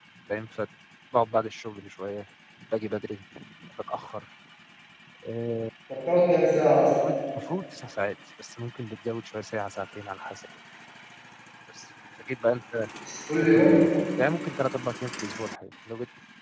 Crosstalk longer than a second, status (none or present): none